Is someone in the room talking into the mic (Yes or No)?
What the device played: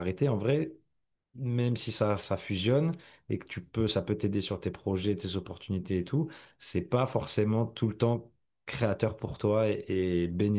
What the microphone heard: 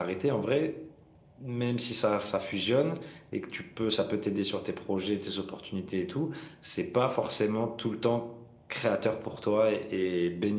No